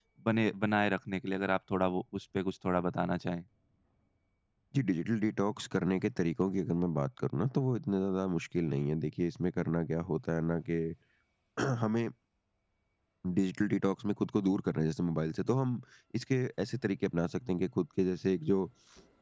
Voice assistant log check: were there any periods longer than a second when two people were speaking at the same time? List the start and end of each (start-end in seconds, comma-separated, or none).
none